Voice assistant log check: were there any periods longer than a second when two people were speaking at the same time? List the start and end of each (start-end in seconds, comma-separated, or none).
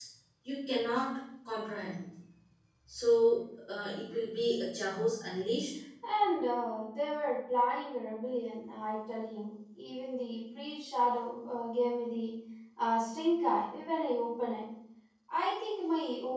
none